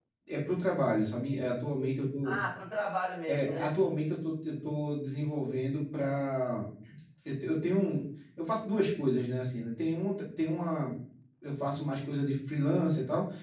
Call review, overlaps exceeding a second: none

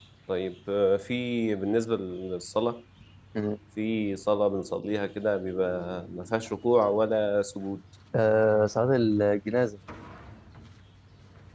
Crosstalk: none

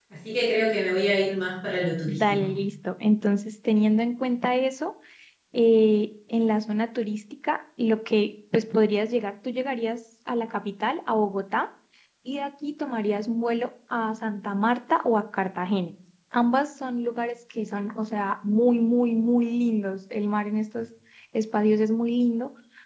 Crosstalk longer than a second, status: none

